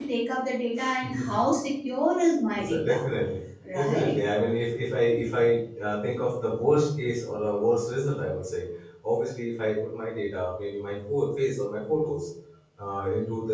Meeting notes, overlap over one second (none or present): none